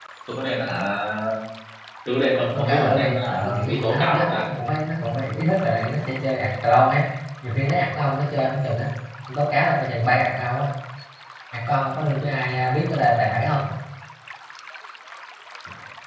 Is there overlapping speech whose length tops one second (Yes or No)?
Yes